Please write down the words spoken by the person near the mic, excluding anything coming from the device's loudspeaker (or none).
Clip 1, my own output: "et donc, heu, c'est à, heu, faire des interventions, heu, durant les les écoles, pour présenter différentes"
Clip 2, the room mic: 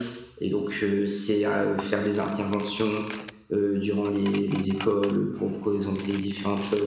none